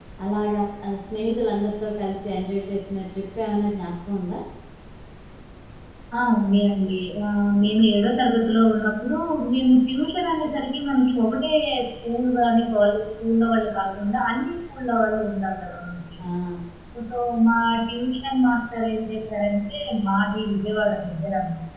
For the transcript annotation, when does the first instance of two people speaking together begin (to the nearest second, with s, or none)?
none